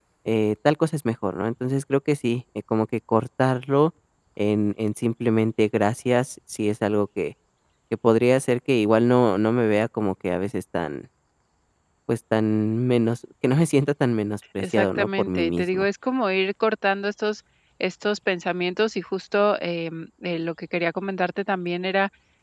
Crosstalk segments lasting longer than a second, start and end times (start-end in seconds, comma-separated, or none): 14.6-15.9